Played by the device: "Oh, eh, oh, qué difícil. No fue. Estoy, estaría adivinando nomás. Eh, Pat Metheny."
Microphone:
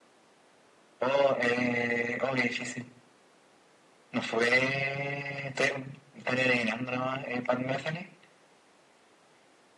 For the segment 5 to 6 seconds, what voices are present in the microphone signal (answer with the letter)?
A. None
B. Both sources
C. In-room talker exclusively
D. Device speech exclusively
D